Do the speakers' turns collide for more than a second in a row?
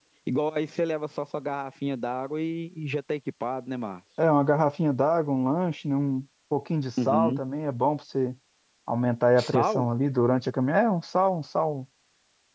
No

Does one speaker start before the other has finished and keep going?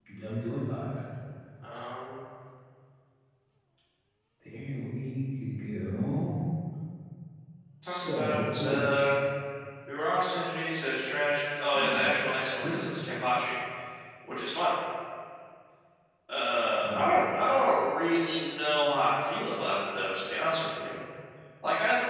Yes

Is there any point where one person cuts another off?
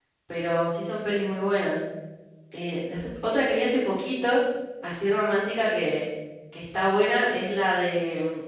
No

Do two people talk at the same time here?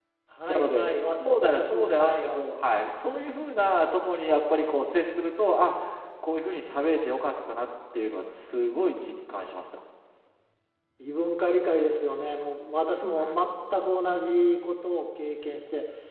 Yes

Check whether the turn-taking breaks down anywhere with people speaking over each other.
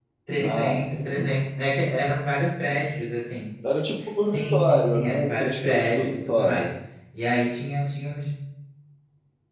Yes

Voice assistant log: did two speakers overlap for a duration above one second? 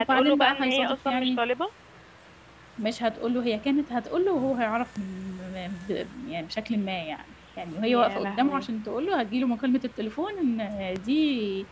Yes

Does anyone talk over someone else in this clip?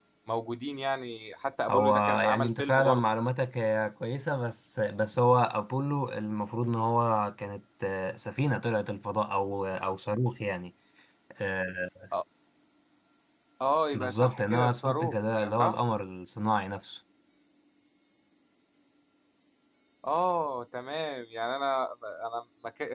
Yes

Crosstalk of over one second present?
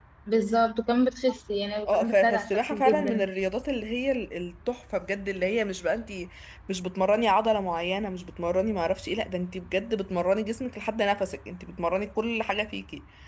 Yes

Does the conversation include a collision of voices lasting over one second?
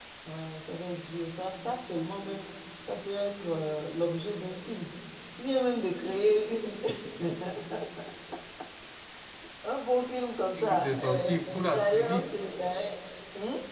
Yes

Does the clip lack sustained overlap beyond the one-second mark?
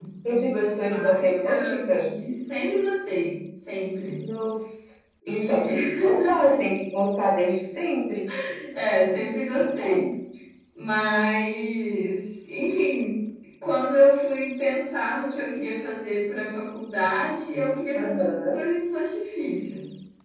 No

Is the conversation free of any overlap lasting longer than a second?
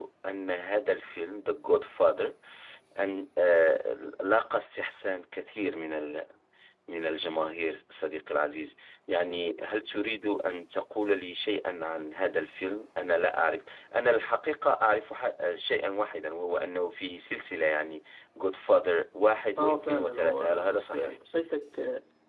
No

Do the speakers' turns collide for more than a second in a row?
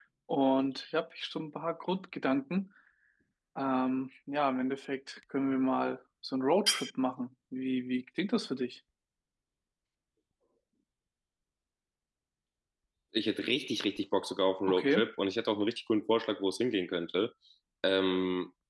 No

